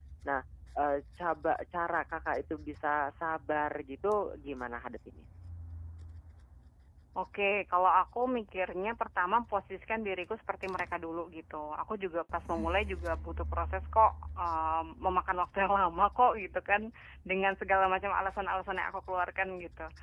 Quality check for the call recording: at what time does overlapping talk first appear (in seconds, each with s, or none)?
none